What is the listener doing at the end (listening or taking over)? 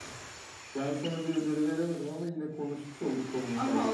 taking over